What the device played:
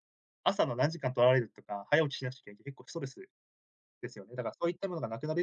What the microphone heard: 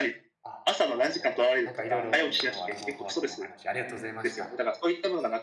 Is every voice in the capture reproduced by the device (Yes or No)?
No